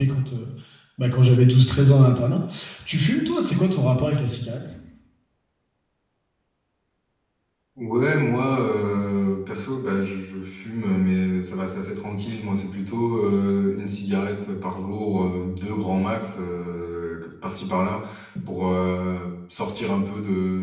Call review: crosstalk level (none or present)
none